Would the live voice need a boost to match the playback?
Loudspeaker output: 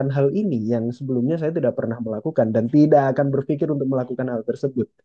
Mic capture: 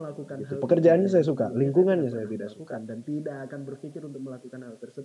No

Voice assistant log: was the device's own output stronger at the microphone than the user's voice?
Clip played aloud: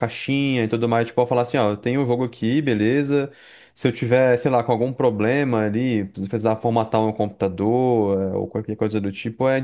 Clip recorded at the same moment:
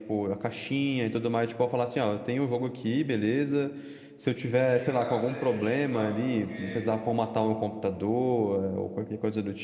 Yes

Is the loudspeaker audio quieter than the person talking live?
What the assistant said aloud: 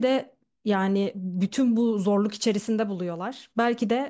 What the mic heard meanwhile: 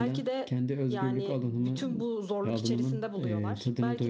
Yes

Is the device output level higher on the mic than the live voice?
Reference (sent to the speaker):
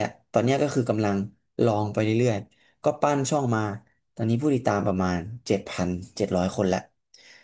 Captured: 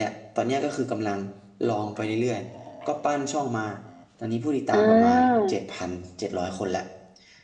No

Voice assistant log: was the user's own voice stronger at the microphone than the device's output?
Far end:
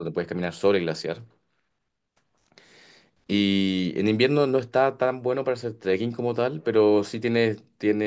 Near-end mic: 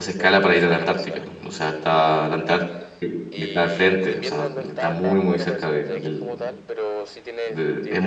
Yes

